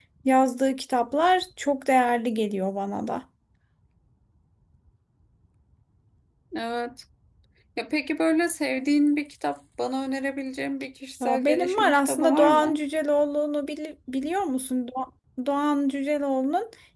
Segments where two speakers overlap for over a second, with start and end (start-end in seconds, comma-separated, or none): 11.2-12.8